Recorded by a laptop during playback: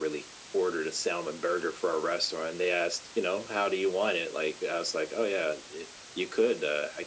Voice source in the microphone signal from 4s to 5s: echo only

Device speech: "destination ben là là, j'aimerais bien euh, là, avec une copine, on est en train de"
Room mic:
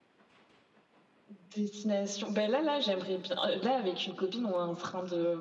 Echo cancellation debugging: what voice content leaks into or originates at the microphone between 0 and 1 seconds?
neither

